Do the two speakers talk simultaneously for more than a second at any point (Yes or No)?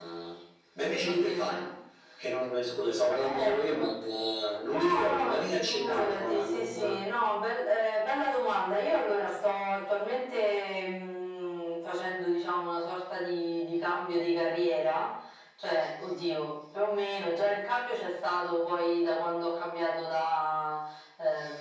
Yes